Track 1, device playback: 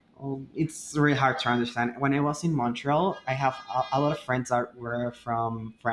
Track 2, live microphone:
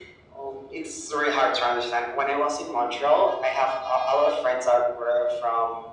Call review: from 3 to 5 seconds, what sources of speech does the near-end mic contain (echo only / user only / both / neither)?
echo only